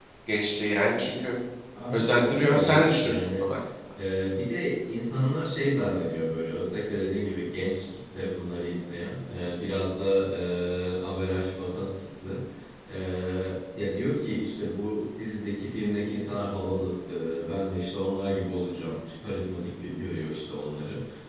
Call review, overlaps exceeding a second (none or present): present